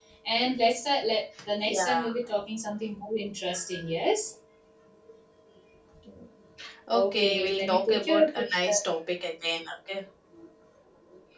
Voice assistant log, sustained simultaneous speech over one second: present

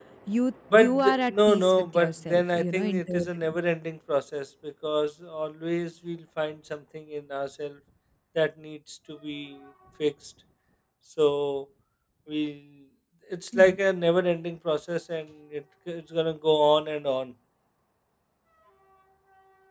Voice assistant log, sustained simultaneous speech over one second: present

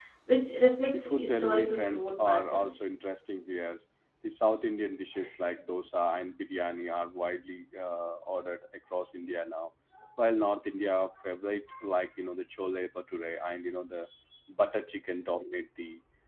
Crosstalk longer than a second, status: present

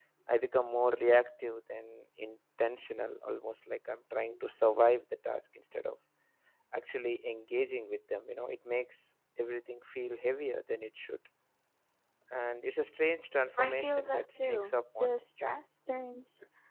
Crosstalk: present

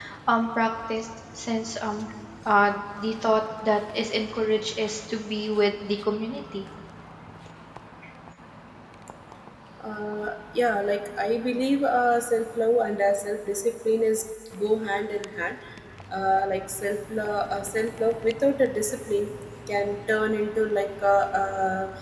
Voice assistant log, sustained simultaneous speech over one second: none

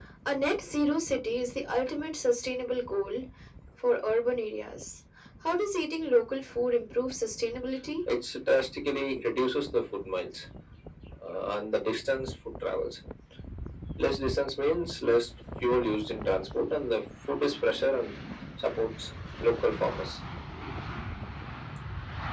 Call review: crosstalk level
none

